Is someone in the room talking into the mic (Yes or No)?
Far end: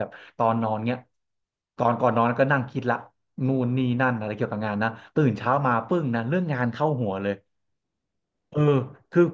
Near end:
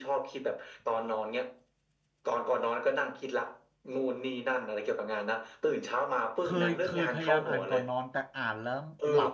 Yes